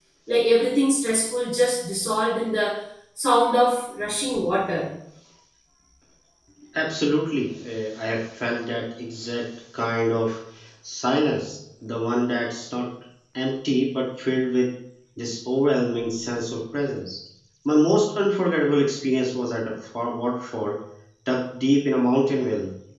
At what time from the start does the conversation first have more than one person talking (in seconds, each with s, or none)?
none